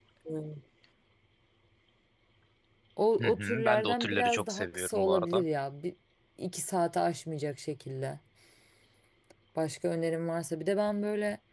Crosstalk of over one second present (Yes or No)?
Yes